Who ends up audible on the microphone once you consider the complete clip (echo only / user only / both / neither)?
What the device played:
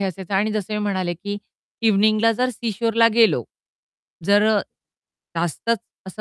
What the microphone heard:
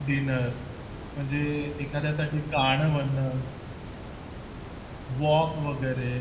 user only